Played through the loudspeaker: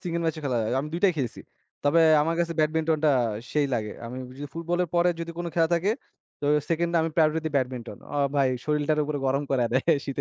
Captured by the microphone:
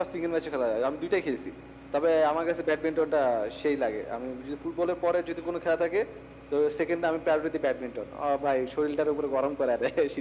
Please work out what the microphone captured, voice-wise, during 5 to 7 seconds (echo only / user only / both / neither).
echo only